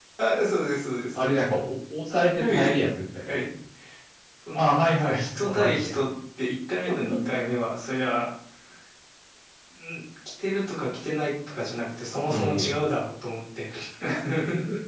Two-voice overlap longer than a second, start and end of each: 4.6-5.9

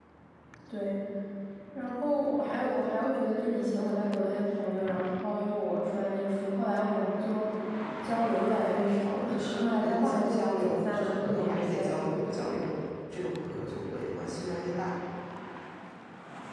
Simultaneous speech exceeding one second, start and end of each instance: 9.2-12.0

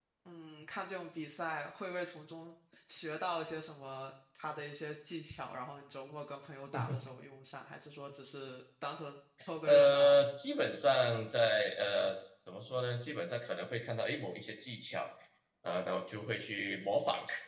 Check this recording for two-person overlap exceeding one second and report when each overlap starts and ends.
none

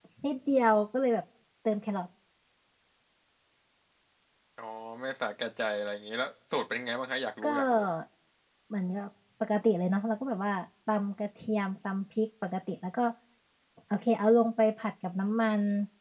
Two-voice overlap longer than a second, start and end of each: none

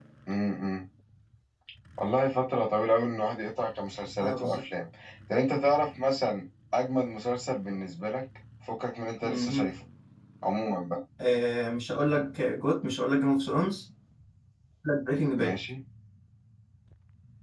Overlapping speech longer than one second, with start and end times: none

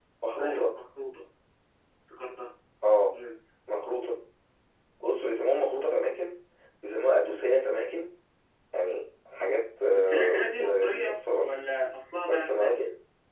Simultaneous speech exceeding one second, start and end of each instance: 9.9-11.5

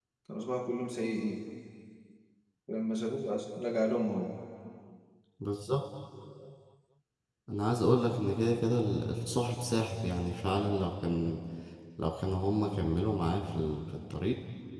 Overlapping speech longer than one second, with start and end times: none

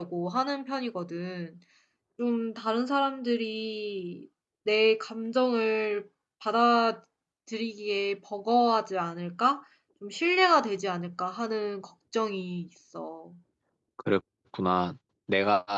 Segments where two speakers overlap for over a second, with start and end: none

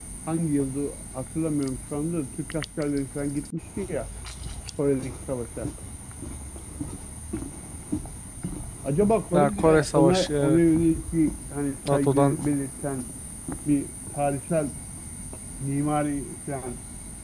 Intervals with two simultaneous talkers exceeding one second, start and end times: 9.3-10.6

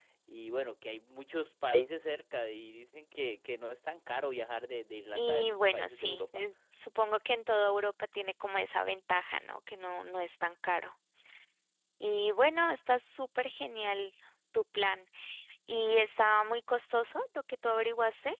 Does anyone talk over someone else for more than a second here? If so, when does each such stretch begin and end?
5.1-6.4

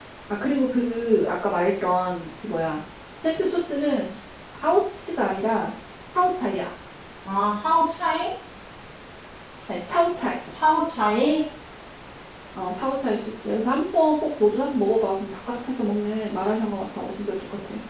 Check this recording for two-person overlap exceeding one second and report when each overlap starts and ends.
none

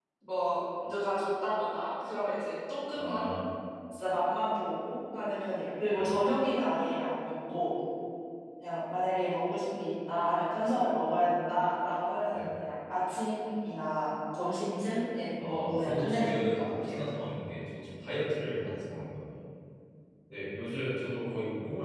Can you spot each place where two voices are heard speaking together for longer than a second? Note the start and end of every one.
15.4-16.9

